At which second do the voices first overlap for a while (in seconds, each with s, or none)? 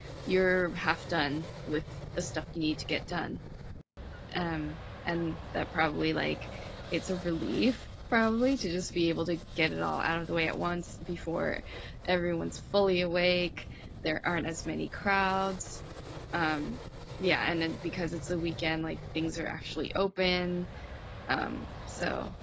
none